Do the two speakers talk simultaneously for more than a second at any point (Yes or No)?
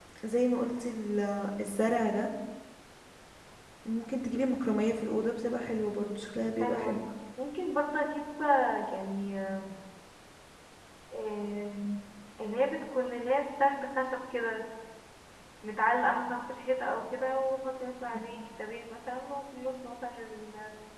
No